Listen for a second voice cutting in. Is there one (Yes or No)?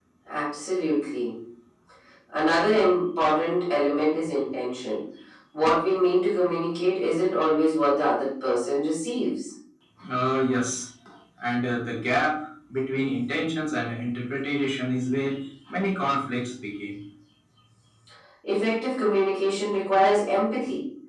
No